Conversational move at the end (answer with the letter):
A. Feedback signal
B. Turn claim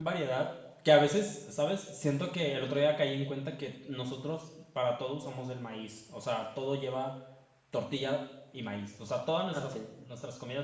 A